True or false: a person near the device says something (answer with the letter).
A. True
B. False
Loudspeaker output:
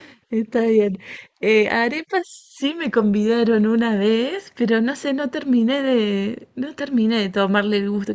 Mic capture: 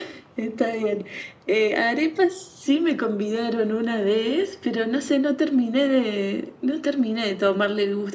B